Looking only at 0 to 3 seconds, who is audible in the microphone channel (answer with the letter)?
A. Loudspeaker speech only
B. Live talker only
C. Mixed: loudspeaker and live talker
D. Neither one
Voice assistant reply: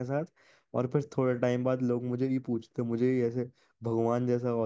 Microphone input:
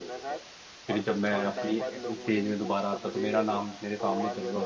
C